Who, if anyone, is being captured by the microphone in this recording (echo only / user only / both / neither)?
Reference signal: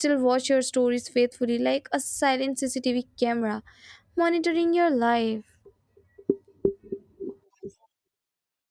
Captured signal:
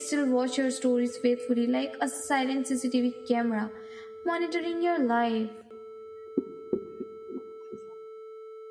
echo only